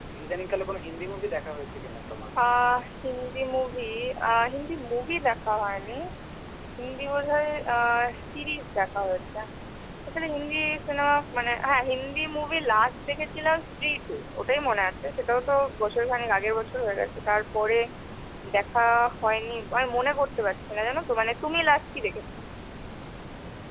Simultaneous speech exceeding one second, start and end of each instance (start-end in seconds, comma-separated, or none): none